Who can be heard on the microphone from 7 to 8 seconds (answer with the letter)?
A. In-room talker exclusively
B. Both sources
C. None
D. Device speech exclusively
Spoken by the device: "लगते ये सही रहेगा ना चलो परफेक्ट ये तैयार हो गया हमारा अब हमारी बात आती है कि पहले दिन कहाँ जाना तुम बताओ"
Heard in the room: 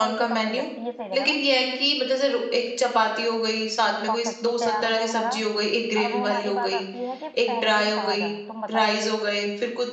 B